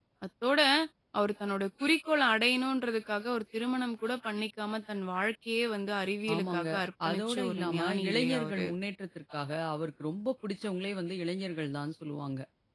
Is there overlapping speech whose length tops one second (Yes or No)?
Yes